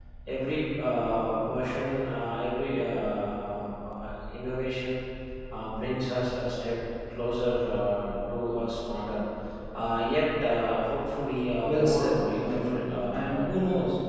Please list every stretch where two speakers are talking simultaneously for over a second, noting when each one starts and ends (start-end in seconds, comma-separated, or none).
11.6-13.6